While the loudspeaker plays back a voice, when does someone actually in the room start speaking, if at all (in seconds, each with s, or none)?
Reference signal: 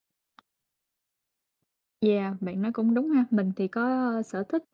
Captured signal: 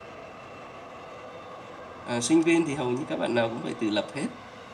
2.0 s